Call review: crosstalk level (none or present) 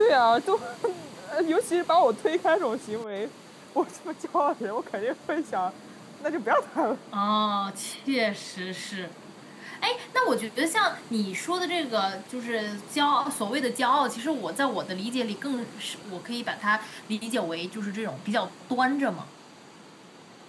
none